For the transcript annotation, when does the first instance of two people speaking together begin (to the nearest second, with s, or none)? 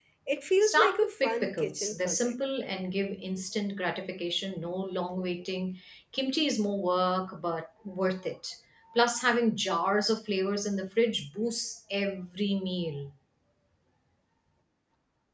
1 s